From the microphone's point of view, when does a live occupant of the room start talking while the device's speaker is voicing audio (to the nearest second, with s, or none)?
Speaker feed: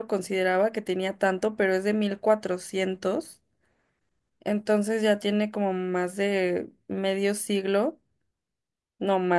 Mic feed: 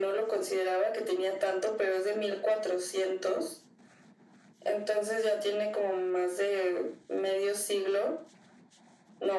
none